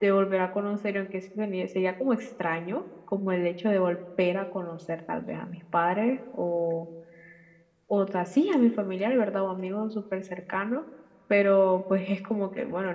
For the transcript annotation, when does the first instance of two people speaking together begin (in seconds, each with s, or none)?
none